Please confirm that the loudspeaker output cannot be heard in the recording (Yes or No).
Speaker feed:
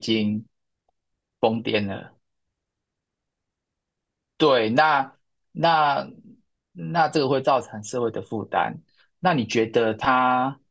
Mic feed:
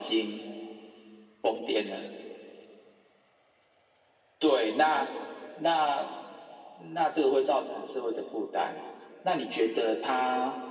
No